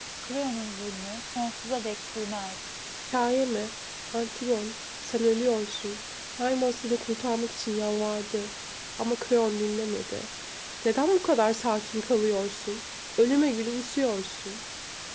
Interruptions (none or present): none